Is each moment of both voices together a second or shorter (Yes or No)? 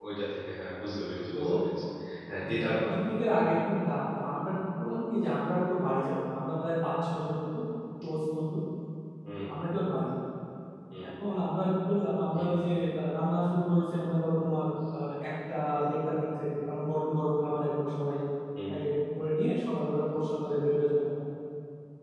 Yes